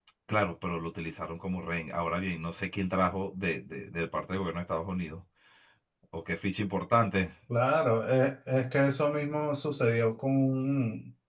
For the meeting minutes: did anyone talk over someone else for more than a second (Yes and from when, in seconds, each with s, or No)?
No